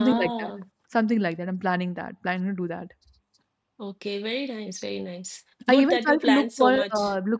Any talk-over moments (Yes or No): Yes